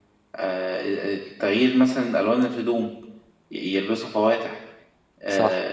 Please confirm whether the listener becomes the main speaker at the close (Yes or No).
No